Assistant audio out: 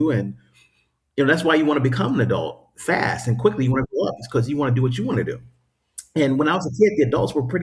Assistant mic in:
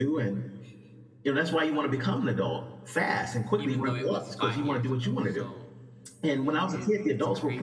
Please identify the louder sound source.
echo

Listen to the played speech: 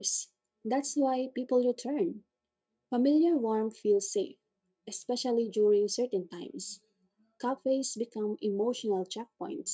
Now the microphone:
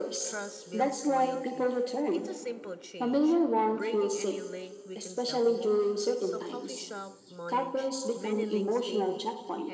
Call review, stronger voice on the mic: echo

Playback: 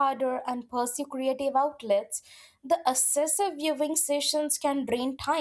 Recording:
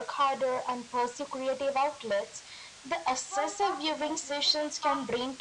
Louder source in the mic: echo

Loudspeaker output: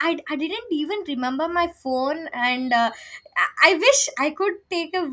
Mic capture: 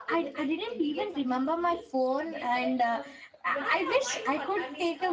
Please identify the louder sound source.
echo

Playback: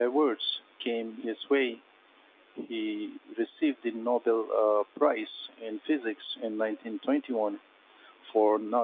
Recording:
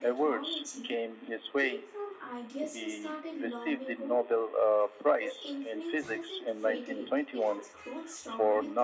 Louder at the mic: echo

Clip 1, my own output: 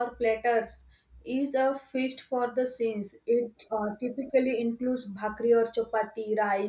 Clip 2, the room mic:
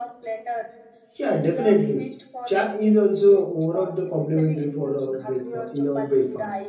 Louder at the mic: user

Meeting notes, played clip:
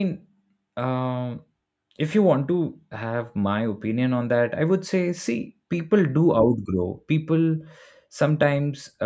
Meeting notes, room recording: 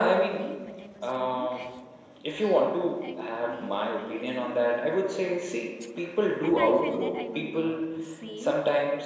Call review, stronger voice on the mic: echo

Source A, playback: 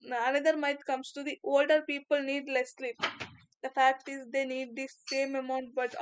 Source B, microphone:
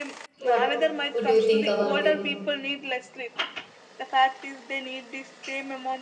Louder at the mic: user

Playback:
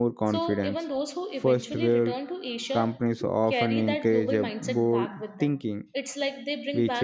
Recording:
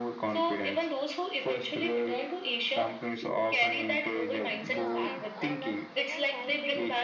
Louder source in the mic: echo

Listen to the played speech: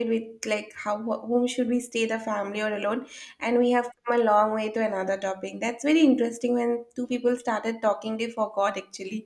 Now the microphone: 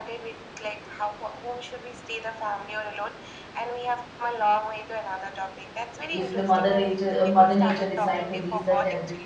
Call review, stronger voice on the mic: user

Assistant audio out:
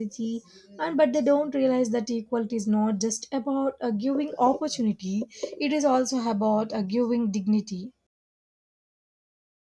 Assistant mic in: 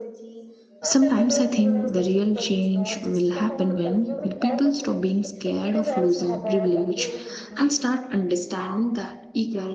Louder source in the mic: user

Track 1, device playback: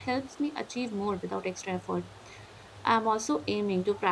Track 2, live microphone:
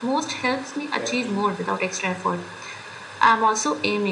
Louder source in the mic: echo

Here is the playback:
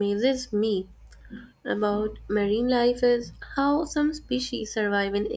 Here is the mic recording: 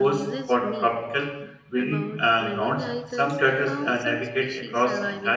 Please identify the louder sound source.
user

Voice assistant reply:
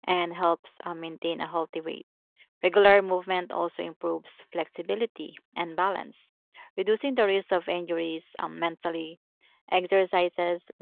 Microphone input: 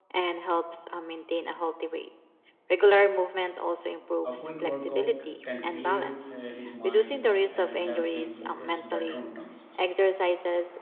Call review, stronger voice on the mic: echo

